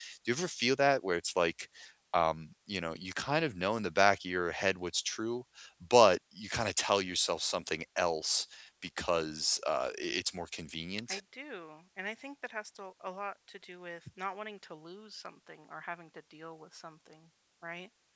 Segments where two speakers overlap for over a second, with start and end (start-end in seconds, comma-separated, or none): none